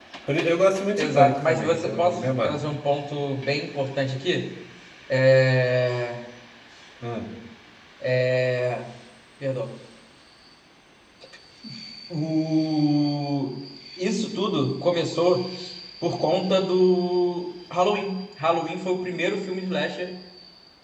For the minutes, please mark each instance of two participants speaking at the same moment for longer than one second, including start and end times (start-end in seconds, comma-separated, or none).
1.0-2.5